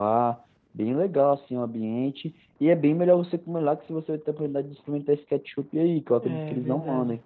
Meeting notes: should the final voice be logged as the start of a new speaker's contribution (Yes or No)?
Yes